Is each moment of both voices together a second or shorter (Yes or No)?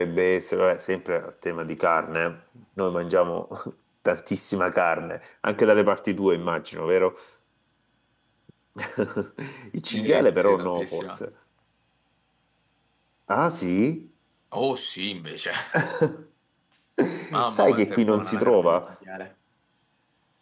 No